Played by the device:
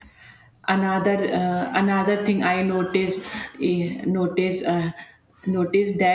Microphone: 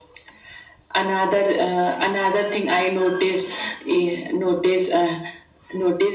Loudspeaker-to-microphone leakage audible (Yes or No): Yes